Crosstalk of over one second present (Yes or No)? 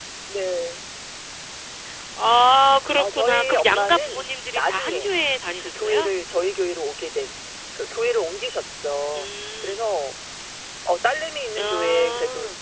Yes